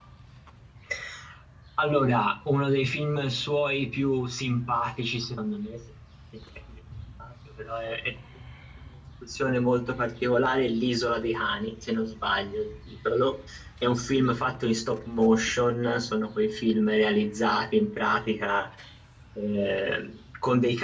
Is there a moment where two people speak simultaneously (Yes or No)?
No